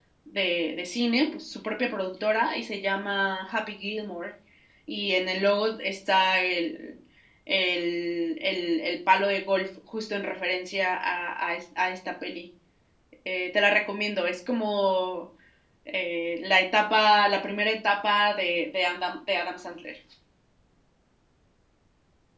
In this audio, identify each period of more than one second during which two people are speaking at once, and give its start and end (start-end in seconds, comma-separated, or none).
none